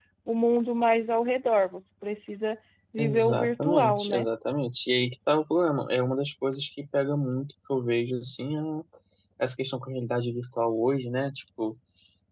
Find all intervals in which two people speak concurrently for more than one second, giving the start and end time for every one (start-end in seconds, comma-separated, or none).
3.0-4.2